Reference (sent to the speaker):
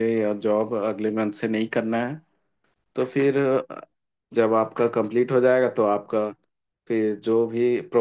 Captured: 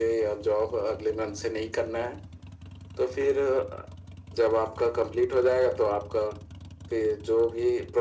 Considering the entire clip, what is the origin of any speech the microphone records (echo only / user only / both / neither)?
echo only